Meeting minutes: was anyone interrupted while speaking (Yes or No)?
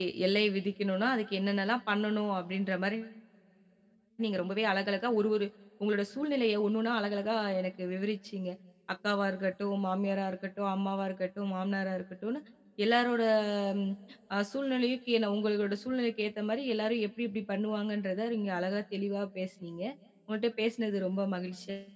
No